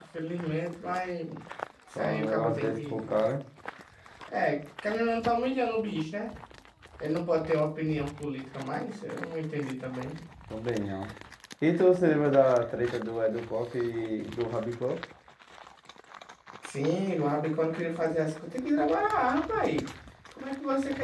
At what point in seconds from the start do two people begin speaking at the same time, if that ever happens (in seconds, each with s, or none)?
1.9 s